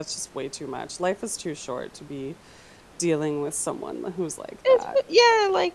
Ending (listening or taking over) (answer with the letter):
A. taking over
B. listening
A